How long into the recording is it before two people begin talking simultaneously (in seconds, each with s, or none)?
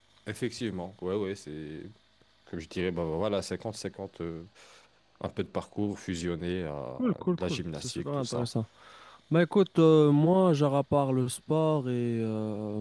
7.0 s